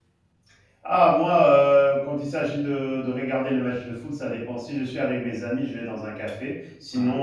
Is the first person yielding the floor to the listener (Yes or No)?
No